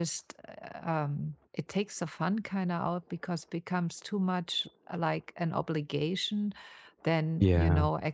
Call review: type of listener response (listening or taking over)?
listening